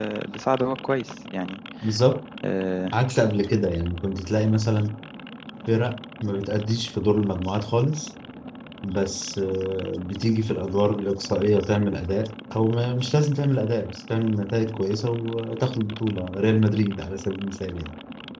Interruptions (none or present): none